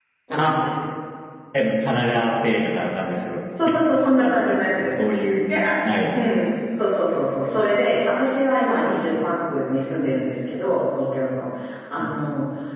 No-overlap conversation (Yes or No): No